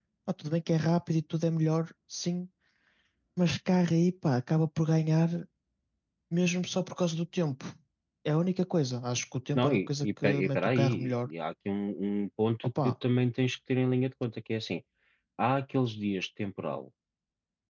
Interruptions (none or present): present